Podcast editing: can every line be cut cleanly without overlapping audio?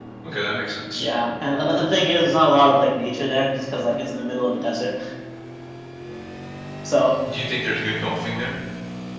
Yes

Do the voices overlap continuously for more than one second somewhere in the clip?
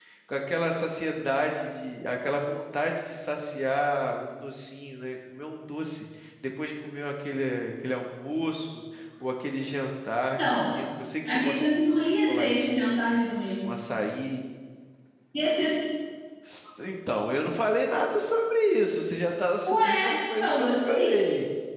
Yes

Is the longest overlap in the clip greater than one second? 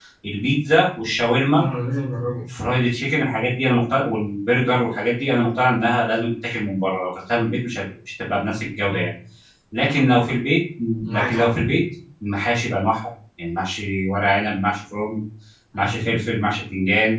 No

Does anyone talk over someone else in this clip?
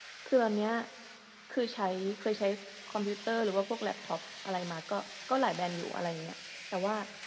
No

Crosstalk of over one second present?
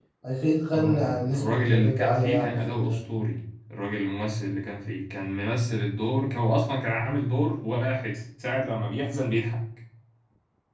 Yes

